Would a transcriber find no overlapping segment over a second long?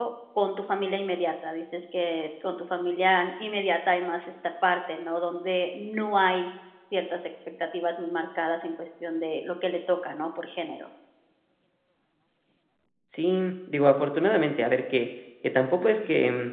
Yes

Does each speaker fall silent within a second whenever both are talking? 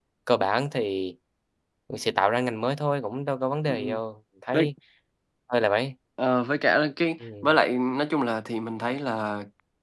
Yes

